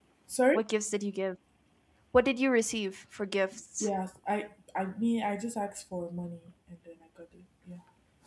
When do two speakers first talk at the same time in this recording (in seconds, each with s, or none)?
none